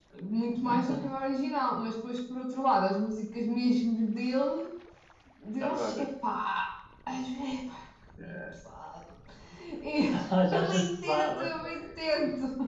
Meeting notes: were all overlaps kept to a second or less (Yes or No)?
No